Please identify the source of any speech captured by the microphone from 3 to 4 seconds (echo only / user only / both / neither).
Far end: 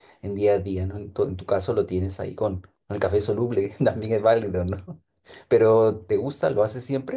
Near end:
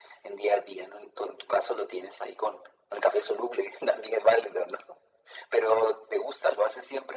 echo only